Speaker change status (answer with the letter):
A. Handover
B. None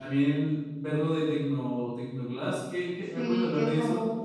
A